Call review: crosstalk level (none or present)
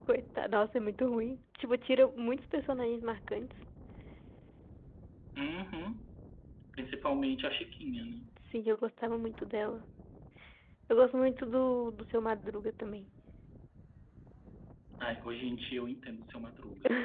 none